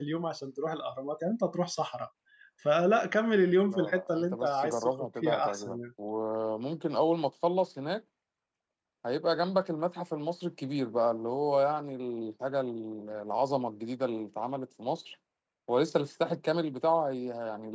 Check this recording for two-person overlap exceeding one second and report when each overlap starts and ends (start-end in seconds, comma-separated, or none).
3.7-5.8